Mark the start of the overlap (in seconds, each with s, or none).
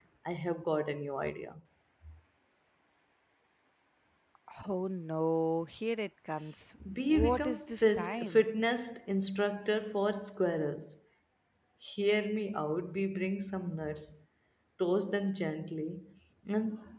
7.1 s